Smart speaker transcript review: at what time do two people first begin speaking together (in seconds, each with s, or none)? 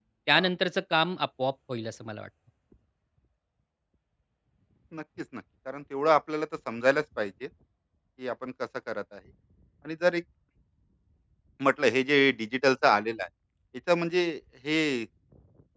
none